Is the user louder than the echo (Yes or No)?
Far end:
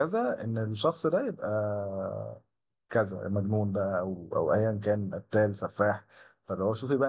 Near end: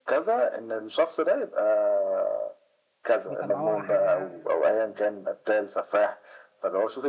No